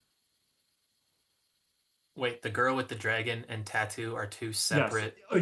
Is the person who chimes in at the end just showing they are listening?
No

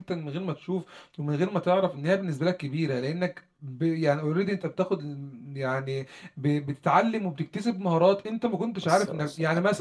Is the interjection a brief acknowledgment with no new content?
Yes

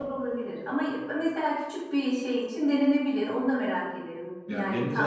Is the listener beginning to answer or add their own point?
Yes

